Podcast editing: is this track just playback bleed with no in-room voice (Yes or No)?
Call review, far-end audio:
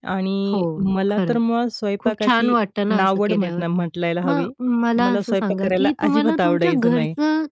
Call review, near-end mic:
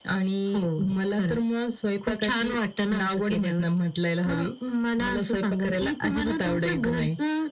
Yes